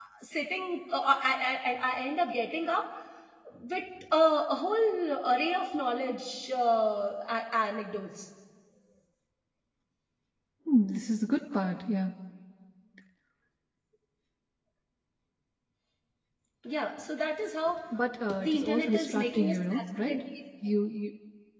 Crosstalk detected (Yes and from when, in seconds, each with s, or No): Yes, from 18.4 s